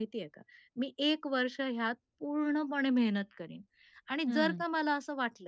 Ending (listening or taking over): listening